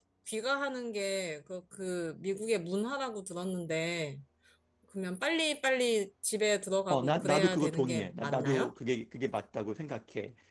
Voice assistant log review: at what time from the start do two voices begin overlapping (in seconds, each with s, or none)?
6.9 s